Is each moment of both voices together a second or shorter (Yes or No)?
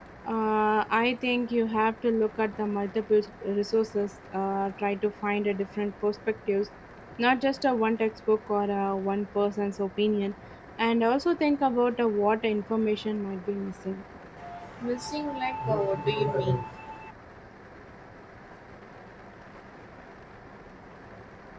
Yes